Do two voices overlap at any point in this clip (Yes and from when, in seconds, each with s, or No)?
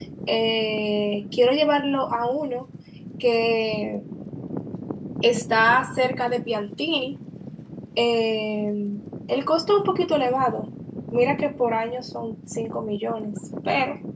No